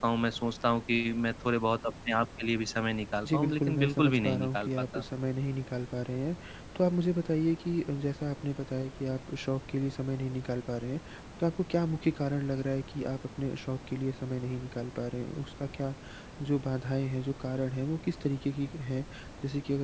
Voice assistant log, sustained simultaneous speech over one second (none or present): present